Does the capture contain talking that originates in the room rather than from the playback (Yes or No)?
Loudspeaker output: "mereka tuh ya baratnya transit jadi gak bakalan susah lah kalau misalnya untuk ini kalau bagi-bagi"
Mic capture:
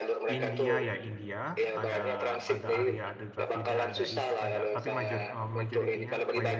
Yes